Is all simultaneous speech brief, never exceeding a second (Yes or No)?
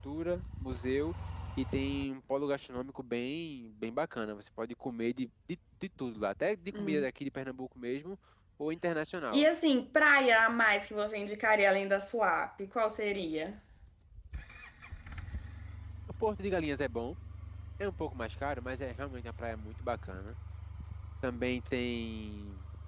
Yes